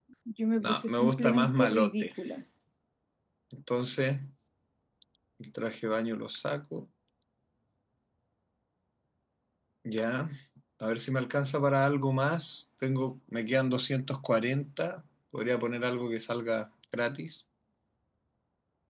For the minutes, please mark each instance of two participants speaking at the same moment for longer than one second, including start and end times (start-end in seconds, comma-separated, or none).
0.6-2.1